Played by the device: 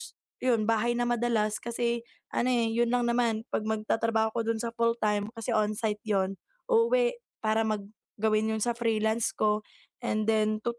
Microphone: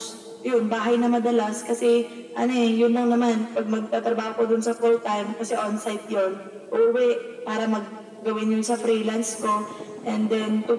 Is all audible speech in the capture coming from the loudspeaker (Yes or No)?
Yes